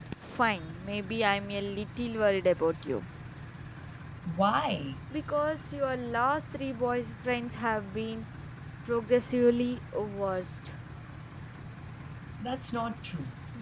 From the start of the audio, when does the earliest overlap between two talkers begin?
none

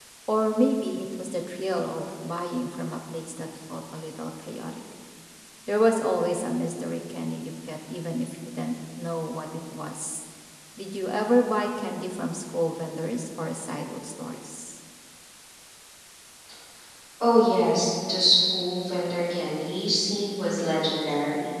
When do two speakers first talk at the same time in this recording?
none

